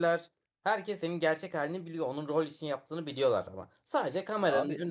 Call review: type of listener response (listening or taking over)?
listening